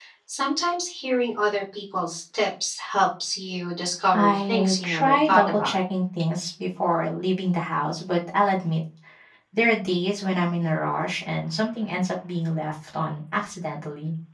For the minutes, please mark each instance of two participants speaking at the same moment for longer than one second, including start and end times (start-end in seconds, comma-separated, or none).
4.1-5.8